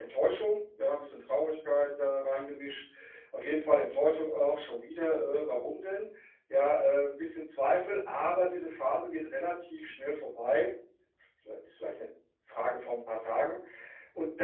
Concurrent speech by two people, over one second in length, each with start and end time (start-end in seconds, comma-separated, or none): none